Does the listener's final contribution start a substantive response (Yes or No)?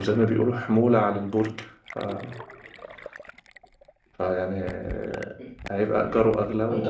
Yes